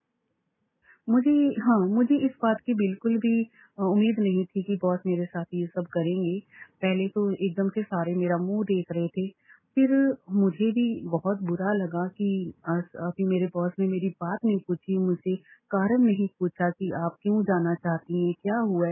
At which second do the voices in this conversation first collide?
none

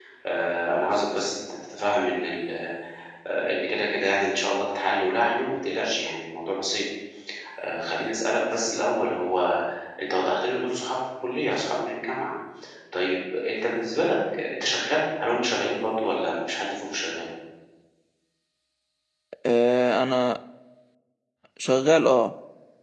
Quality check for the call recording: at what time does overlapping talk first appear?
none

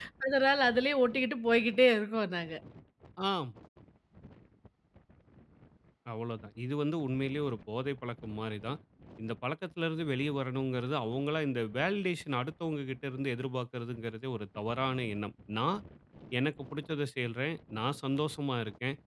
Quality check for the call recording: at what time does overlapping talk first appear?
none

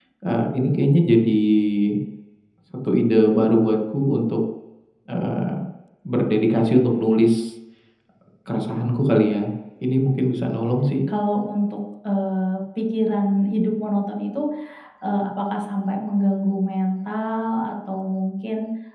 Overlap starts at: none

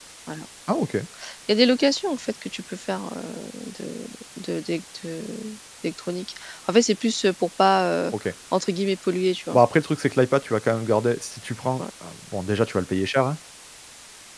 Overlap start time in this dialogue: none

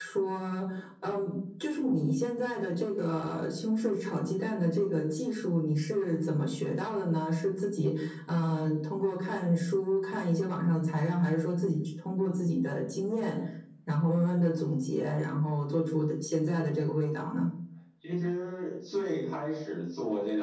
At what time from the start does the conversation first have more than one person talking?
none

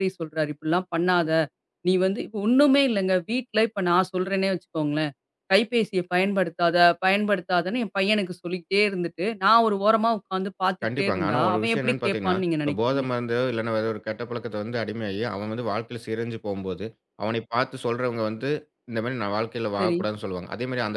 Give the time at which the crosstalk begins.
11 s

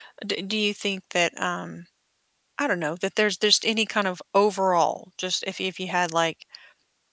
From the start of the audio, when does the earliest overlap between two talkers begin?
none

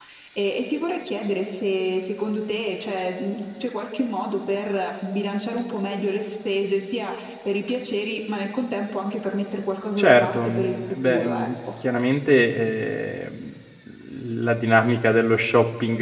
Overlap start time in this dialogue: 10 s

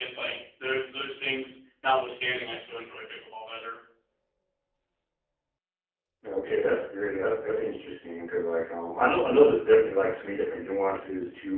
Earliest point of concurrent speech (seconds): none

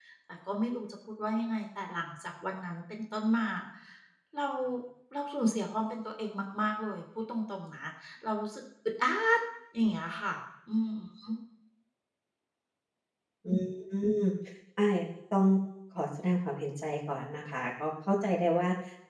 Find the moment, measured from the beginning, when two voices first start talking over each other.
none

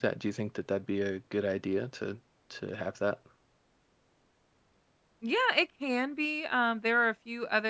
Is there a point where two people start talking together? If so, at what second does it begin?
none

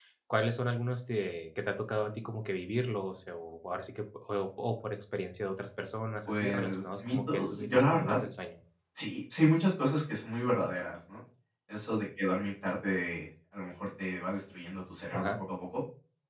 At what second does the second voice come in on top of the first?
6 s

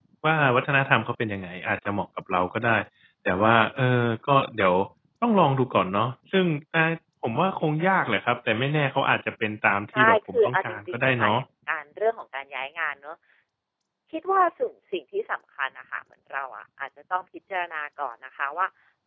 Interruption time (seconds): 10 s

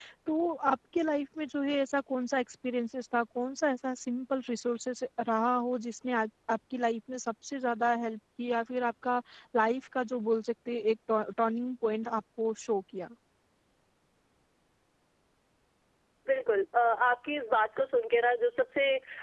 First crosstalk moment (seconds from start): none

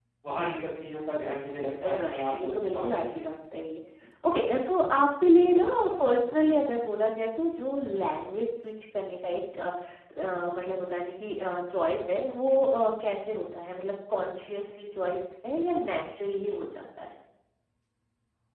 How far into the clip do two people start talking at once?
2 s

